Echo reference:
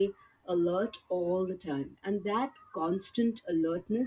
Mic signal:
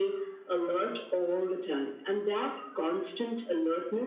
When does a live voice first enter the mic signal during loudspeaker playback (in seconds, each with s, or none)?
none